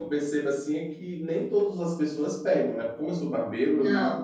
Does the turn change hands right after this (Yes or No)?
No